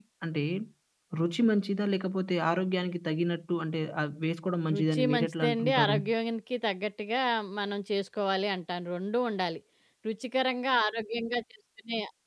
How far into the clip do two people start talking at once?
4.6 s

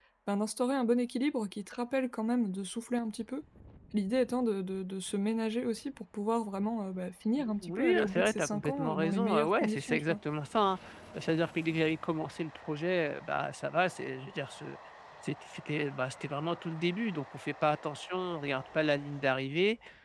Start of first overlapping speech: 7.4 s

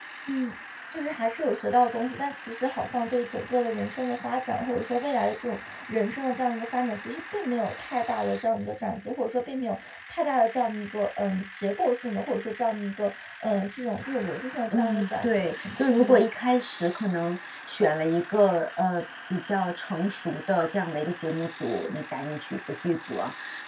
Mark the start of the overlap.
14.7 s

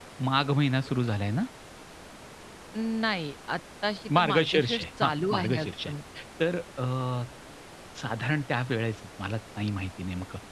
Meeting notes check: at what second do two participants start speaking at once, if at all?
4.1 s

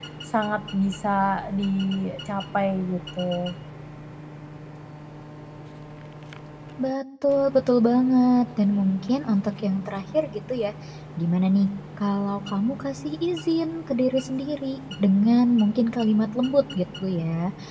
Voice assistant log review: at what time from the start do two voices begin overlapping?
none

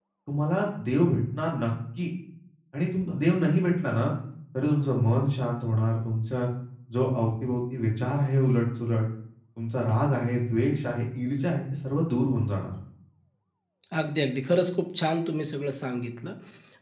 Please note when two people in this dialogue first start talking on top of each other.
none

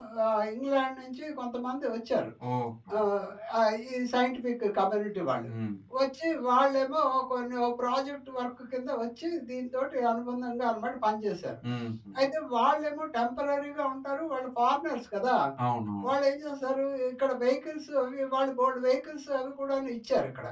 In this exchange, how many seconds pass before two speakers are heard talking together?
none

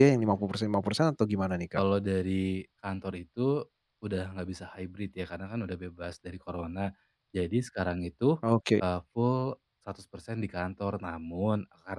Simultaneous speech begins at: none

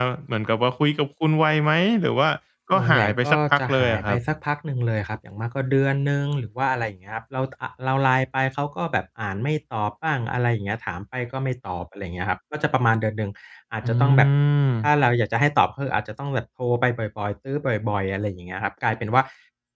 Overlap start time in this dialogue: 2.7 s

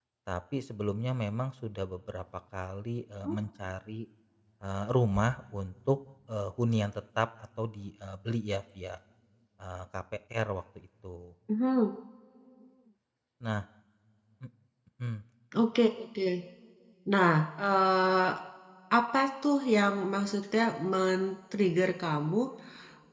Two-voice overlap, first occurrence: none

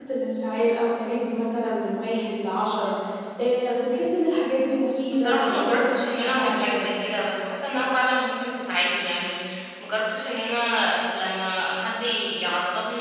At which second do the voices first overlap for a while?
5.1 s

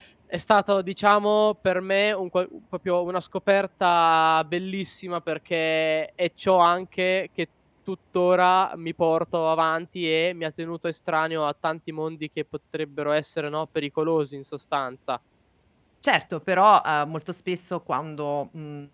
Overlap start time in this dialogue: none

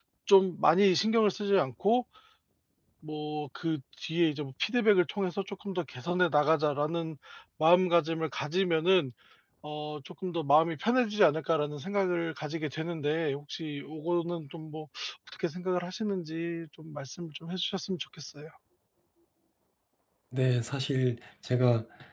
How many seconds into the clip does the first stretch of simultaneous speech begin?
none

